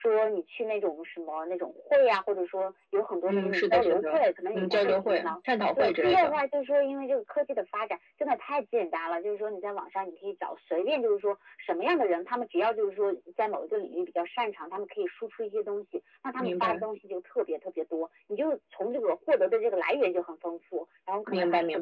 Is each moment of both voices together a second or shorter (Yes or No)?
No